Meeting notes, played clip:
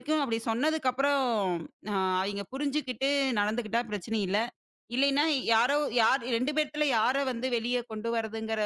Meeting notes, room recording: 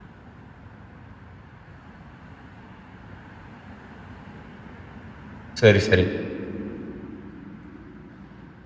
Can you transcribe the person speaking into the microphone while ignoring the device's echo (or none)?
சரி, சரி.